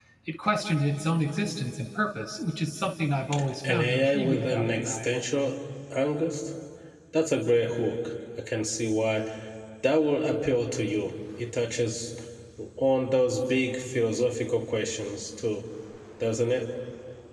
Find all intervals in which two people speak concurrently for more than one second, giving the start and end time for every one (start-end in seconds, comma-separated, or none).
3.7-5.1